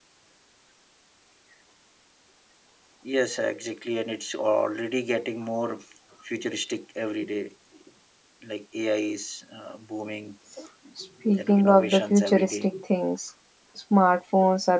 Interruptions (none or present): present